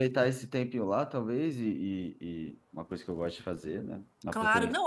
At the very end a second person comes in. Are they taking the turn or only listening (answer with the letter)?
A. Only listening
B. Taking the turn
B